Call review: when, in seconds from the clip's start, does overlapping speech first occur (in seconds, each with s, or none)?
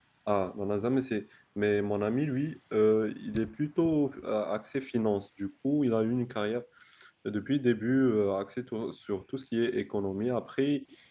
none